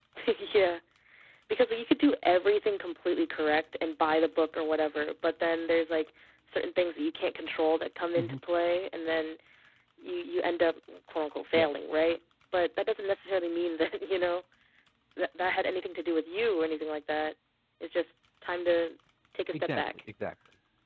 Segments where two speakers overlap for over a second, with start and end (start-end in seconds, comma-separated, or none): none